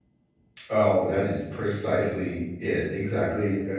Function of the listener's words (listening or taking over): taking over